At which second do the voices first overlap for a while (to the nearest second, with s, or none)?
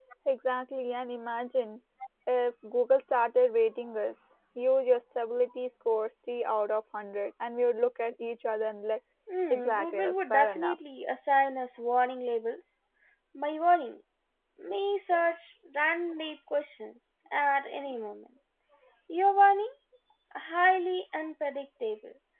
10 s